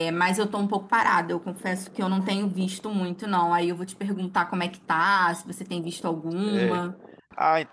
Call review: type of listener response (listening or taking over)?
taking over